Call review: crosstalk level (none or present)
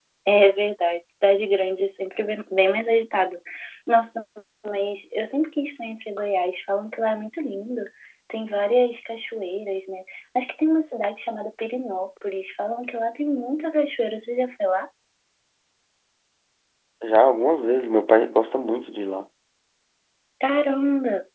none